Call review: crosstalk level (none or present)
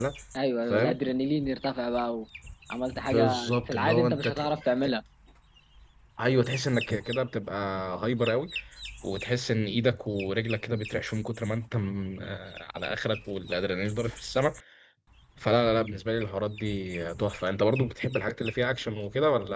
present